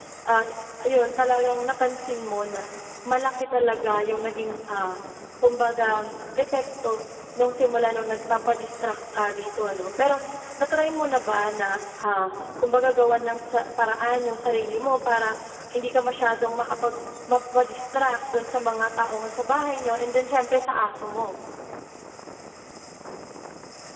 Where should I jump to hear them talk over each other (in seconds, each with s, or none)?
none